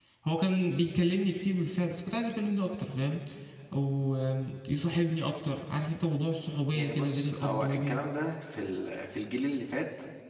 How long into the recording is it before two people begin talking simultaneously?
7 s

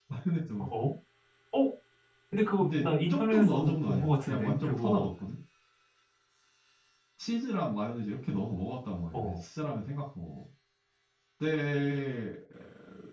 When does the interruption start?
3 s

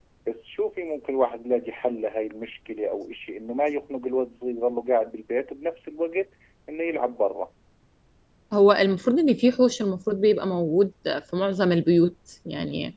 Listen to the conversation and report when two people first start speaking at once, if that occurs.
none

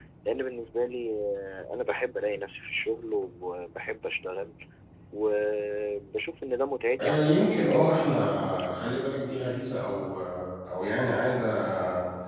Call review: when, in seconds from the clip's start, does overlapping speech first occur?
7 s

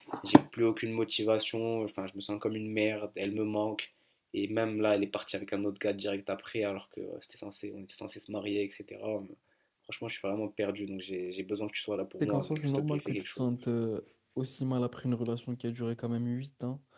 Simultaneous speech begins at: 12 s

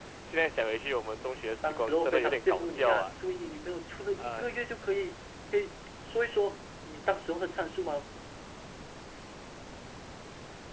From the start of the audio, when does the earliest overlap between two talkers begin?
2 s

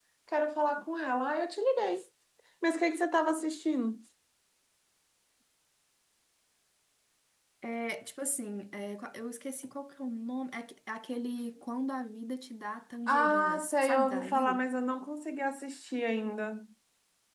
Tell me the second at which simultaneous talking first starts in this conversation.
13 s

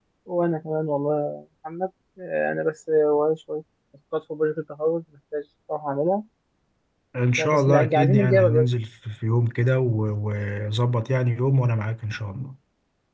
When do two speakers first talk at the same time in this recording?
7 s

